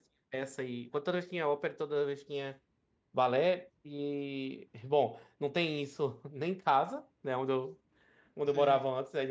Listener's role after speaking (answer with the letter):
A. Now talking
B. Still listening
B